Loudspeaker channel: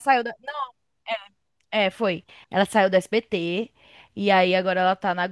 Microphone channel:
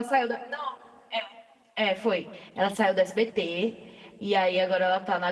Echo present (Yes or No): Yes